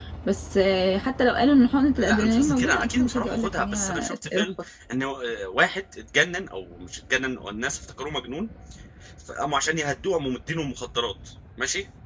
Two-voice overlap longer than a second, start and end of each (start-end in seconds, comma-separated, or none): 2.0-4.4